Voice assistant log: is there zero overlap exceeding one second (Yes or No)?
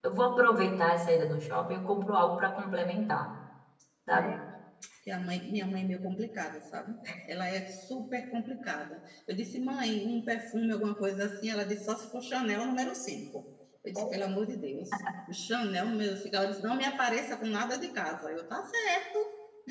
Yes